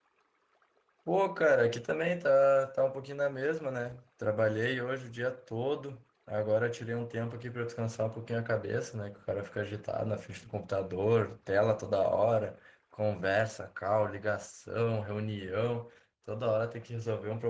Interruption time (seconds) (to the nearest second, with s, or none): none